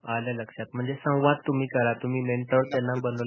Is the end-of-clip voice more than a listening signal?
No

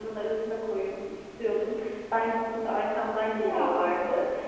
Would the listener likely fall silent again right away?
Yes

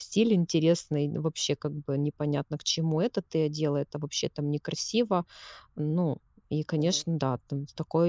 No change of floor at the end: Yes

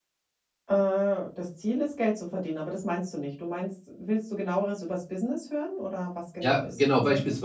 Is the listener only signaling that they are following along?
No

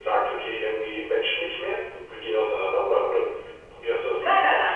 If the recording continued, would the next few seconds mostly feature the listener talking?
Yes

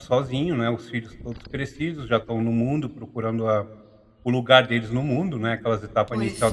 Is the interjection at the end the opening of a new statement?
No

